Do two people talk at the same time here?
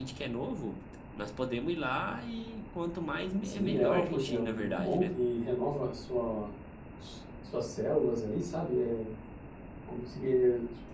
Yes, from 3.4 s

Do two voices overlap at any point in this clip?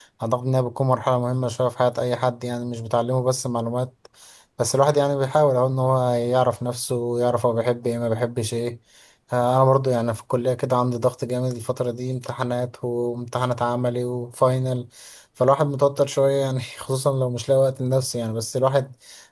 No

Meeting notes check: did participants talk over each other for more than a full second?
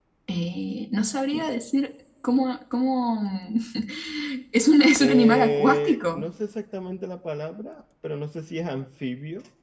Yes, from 5.0 s

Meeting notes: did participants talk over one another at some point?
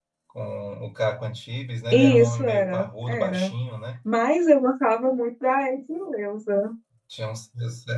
Yes, from 1.9 s

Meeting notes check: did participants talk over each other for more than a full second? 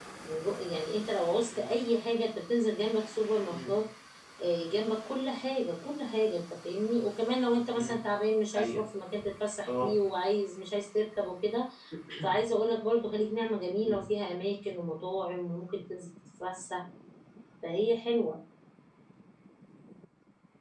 No

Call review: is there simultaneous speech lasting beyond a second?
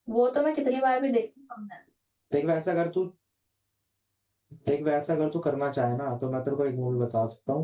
No

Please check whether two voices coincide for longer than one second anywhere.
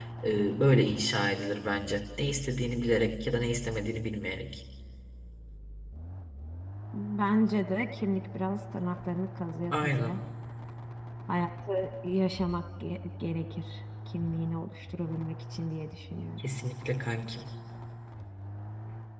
No

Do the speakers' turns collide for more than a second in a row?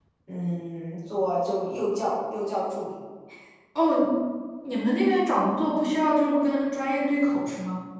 No

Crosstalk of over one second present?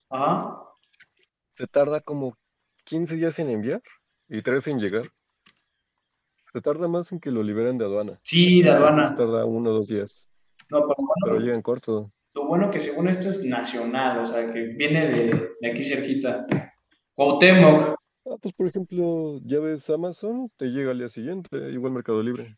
No

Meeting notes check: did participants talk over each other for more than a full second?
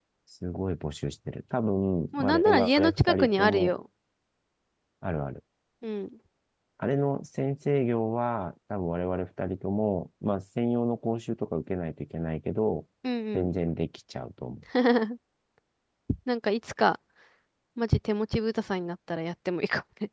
Yes, from 2.1 s

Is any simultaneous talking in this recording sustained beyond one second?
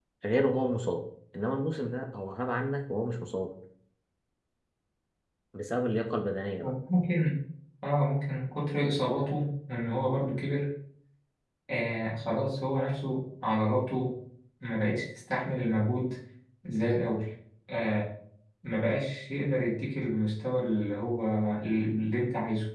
No

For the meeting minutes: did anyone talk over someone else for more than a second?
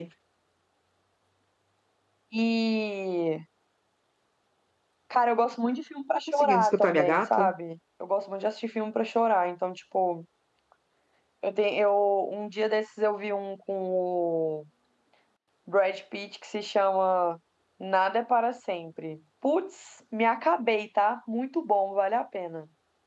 Yes, from 6.3 s

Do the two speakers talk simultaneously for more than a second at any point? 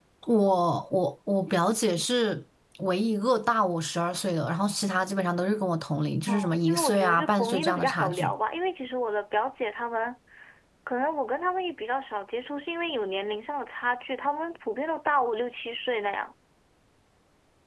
Yes, from 6.3 s

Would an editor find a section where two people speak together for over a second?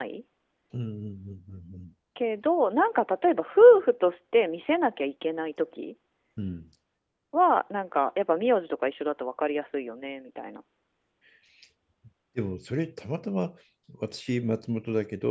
No

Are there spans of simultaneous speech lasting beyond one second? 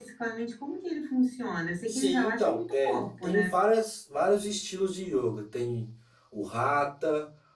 Yes, from 1.9 s

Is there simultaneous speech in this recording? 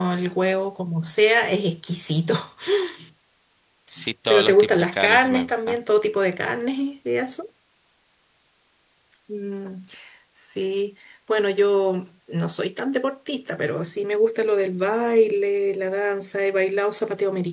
Yes, from 4.3 s

